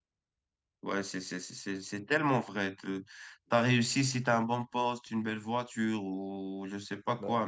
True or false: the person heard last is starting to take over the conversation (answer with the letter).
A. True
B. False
B